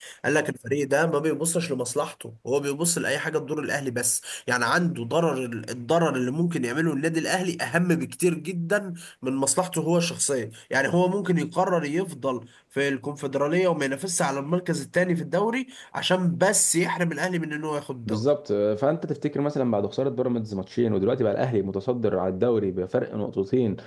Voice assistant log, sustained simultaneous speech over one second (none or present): none